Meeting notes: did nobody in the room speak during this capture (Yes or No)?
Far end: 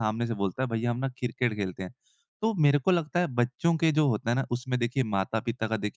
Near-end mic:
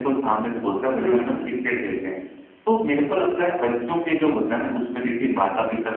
No